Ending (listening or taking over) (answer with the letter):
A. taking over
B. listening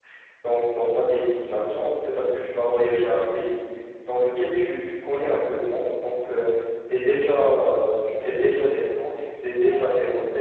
B